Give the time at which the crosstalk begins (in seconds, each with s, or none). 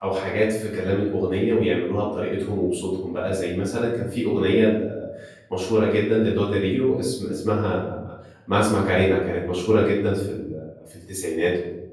none